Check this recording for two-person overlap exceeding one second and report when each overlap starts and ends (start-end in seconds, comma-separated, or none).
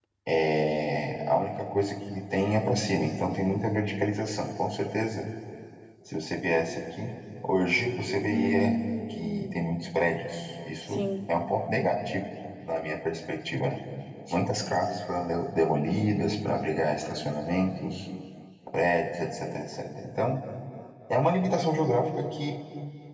none